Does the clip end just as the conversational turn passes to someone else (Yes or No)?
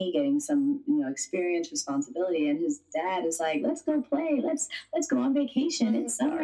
No